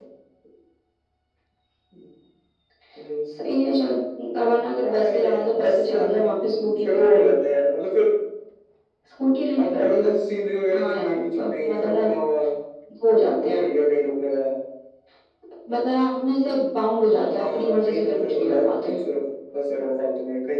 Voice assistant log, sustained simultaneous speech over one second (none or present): present